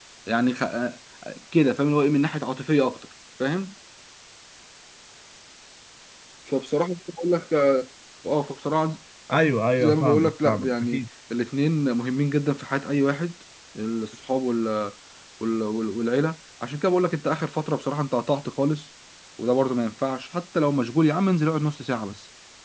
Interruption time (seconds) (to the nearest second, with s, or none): 10 s